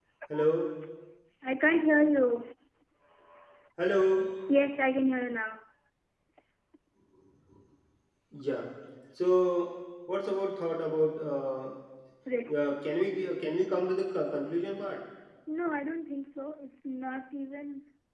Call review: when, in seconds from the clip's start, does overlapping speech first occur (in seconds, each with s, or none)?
none